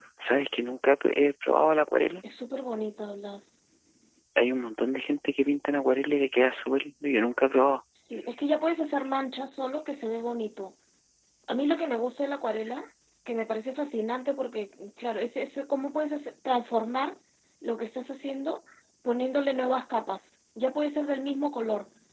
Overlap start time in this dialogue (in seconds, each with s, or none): none